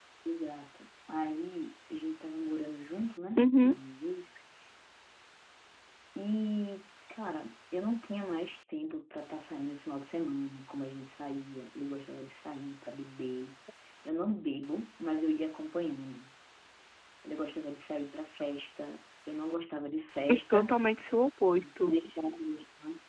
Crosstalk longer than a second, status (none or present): none